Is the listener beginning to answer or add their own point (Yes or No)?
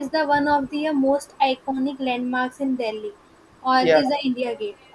No